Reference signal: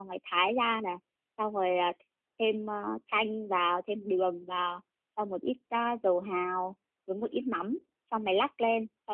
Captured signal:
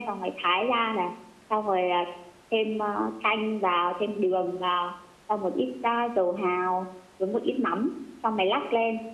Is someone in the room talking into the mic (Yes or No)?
No